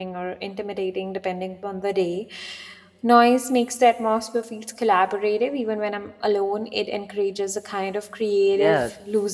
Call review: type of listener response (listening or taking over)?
taking over